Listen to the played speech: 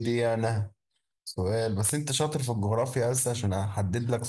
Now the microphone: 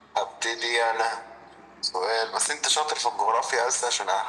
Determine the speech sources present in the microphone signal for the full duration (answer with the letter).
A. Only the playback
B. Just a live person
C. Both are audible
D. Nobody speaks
A